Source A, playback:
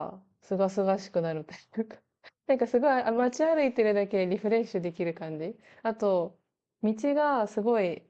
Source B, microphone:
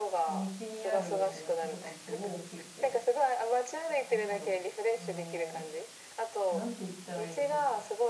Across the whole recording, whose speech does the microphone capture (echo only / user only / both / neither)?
both